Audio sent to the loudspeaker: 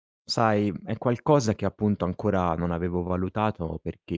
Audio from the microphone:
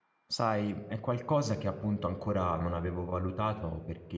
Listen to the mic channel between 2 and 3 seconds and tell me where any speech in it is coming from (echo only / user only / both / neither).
echo only